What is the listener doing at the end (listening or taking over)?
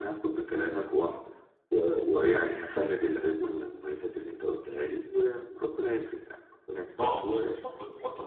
taking over